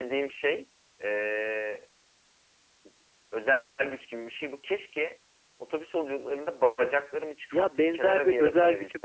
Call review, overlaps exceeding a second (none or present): present